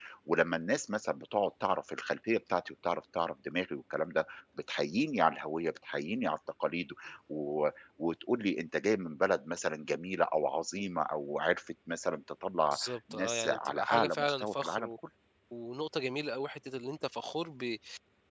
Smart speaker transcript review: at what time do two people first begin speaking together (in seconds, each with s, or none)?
12.7 s